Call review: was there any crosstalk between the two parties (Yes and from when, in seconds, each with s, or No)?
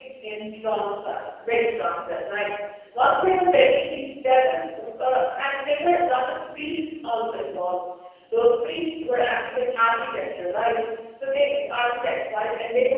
No